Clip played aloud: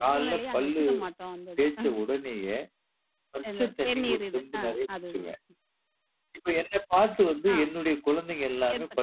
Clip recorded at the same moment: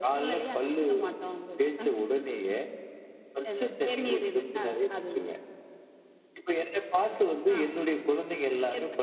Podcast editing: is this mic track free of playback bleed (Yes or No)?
No